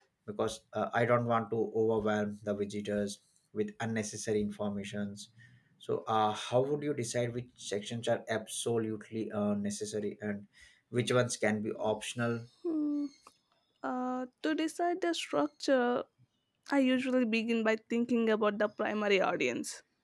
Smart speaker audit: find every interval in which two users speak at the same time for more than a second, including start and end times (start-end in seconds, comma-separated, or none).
none